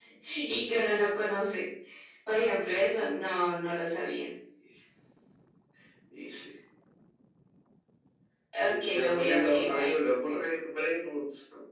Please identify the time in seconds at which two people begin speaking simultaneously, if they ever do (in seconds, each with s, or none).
8.6 s